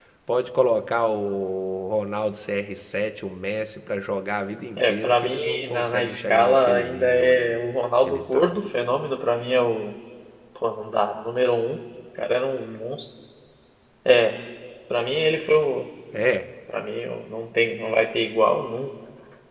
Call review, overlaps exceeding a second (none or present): present